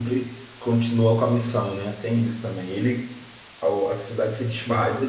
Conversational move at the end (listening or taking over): listening